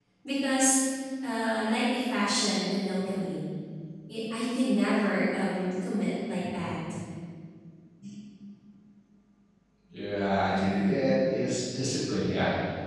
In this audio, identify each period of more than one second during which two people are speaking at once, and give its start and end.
none

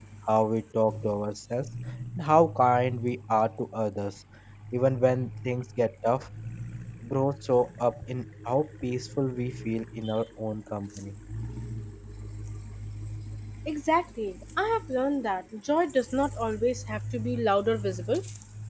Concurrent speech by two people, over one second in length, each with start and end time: none

